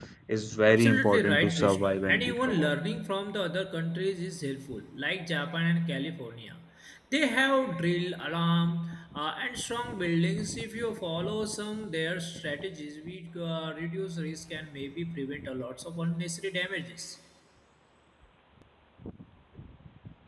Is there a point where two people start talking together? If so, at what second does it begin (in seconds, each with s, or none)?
0.7 s